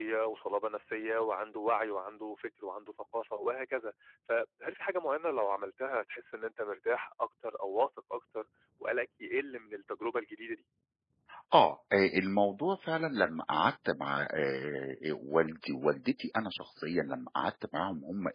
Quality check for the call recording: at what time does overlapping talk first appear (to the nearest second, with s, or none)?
none